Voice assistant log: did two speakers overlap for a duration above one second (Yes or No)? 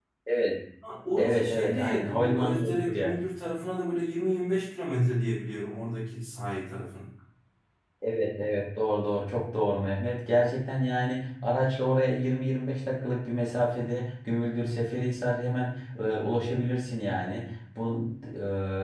Yes